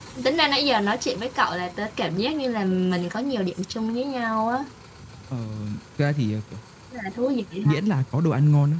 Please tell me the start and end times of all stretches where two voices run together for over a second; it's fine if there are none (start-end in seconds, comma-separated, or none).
none